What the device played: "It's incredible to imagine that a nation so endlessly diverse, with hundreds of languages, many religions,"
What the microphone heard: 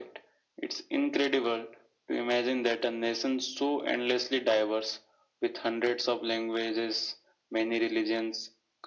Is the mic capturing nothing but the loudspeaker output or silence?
Yes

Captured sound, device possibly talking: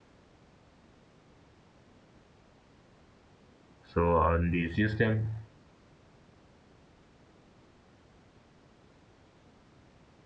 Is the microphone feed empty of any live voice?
No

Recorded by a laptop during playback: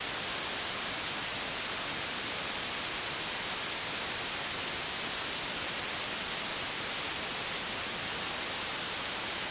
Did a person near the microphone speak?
No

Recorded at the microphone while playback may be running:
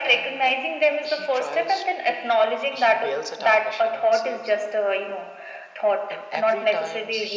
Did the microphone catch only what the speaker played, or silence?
Yes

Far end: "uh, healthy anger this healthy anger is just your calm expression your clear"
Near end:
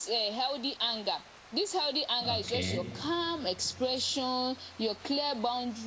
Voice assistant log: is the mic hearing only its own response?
No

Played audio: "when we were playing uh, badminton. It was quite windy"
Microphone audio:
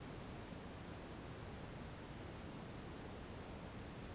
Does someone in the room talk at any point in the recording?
No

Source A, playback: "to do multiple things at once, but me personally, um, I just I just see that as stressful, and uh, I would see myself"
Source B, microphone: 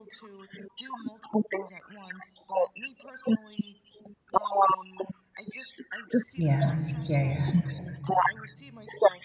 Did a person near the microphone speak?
Yes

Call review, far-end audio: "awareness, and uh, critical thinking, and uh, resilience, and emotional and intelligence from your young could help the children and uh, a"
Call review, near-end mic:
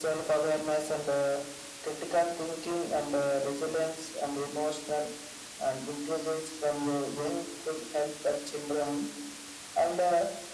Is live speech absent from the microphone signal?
Yes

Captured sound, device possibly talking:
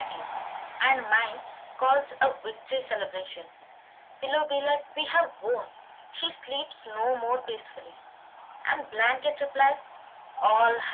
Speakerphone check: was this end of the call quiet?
Yes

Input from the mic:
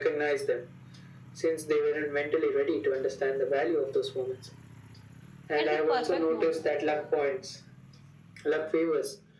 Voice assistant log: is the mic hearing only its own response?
No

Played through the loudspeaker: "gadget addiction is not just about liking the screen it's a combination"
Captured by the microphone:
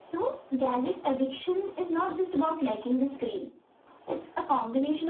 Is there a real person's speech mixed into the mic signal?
No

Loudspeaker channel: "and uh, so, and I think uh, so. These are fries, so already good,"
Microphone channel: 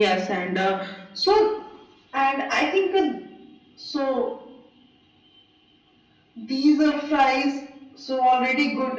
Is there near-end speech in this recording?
No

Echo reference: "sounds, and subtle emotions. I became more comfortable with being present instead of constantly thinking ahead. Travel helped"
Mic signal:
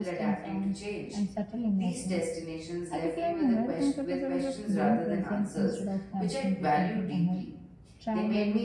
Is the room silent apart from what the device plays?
No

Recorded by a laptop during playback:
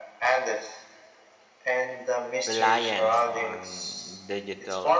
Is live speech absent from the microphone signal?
No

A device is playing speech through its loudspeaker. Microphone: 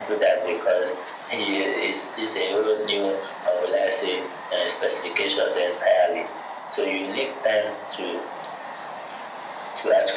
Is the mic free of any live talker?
Yes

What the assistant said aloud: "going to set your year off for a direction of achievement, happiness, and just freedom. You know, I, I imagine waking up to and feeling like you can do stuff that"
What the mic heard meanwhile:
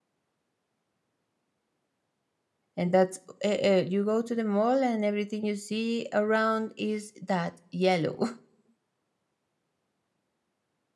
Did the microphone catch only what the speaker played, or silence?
No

